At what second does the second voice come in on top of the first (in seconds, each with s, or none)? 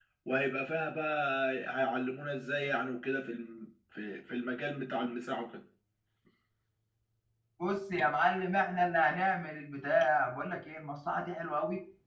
none